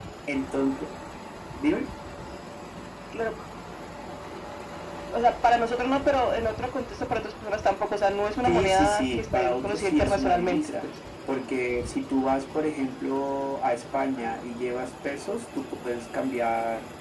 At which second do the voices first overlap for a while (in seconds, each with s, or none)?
8.4 s